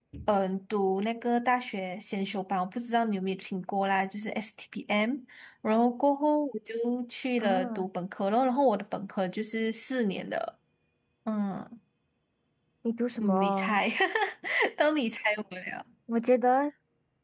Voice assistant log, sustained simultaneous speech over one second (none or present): none